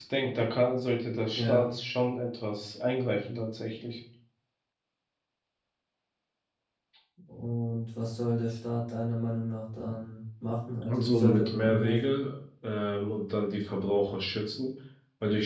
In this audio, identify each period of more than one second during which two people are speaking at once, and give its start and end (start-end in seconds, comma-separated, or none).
10.8-12.2